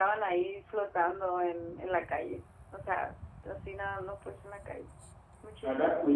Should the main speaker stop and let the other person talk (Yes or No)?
Yes